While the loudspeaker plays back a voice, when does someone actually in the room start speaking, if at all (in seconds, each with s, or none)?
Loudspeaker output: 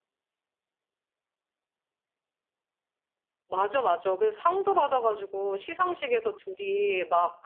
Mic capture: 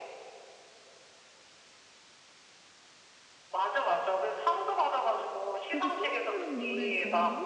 5.7 s